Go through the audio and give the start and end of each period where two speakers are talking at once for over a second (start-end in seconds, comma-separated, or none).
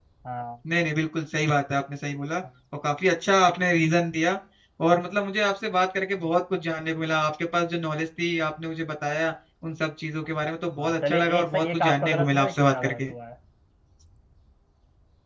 10.8-13.1